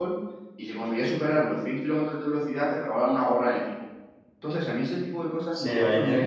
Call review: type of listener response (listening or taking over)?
taking over